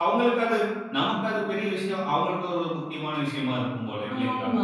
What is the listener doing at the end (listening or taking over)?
taking over